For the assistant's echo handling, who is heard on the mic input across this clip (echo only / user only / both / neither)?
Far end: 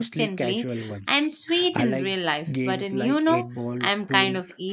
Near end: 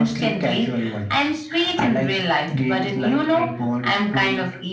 echo only